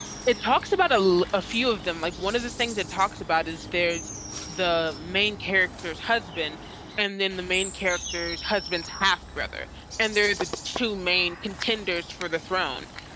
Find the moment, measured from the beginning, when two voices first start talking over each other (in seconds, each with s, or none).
none